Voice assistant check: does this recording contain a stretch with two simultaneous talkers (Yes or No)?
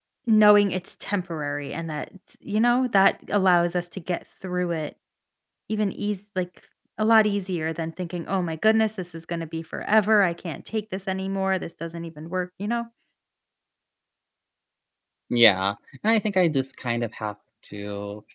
No